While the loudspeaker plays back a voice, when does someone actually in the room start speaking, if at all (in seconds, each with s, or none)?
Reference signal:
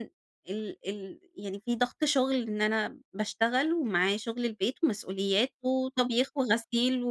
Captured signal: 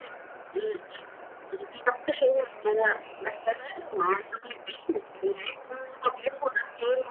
none